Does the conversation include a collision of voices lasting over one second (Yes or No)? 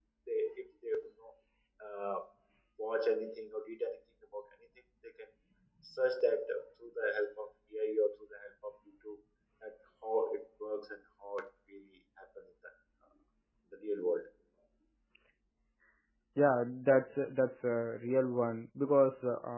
No